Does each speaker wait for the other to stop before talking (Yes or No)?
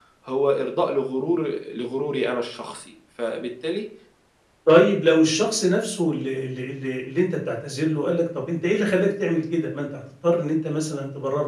Yes